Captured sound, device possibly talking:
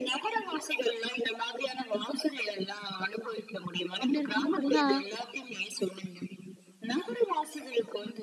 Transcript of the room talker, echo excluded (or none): அப்படி இருக்கும்போது பார்த்தீங்கன்னா